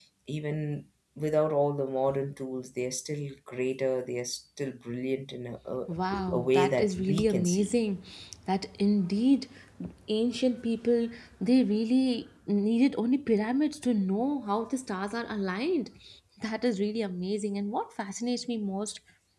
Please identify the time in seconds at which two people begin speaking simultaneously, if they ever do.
6.3 s

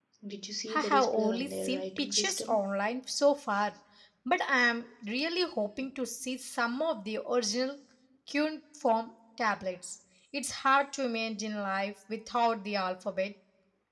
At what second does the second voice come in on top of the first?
0.7 s

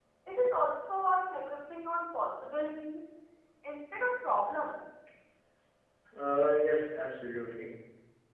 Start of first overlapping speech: none

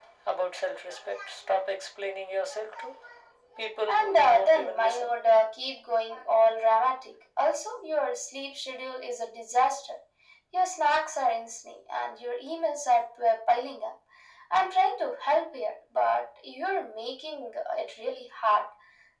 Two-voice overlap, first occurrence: 3.9 s

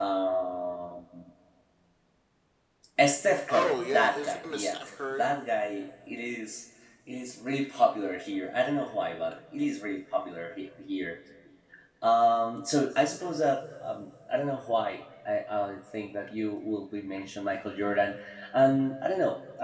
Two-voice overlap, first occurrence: 3.5 s

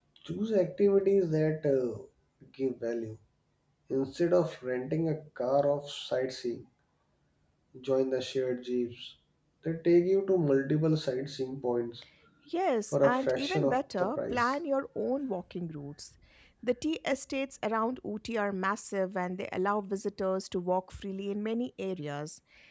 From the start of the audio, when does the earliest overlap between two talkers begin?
12.9 s

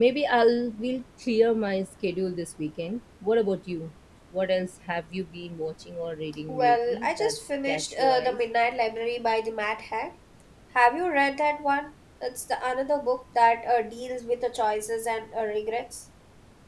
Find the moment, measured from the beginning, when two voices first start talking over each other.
6.5 s

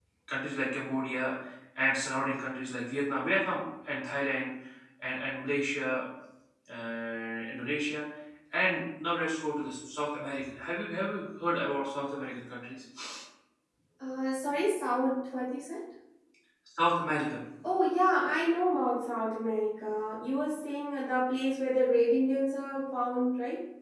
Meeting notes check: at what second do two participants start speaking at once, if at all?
none

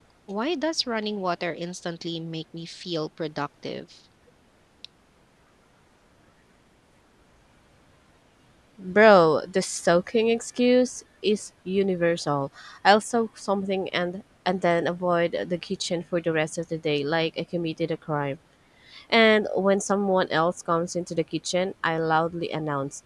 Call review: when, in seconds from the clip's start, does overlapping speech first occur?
none

